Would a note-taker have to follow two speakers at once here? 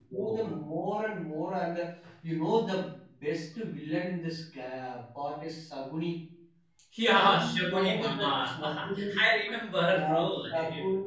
Yes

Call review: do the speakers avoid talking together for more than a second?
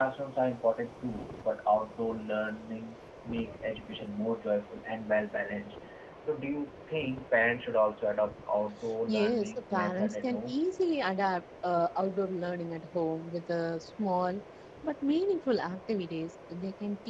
No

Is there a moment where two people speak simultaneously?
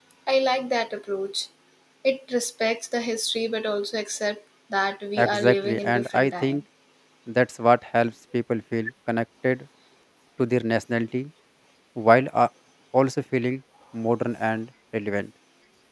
Yes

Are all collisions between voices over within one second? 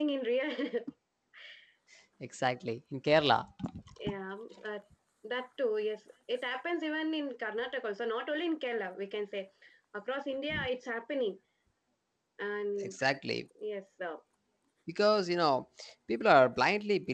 Yes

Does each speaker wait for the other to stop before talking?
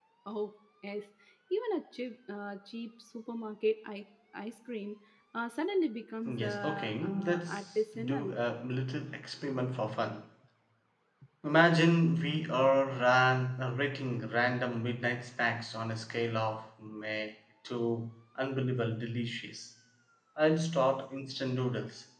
No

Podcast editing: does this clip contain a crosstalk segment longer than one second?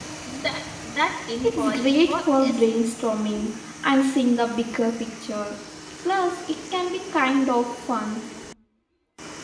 Yes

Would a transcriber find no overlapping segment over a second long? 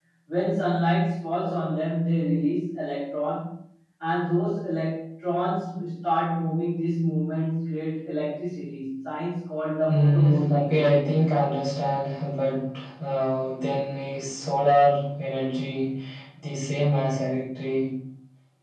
No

